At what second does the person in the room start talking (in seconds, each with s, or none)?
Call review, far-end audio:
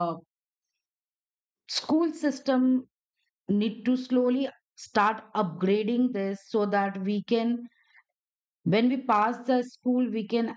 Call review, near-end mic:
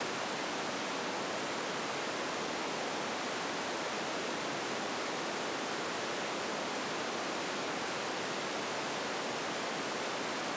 none